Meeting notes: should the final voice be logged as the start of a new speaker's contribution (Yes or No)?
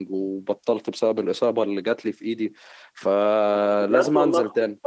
Yes